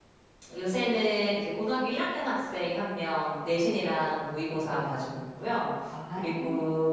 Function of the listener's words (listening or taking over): listening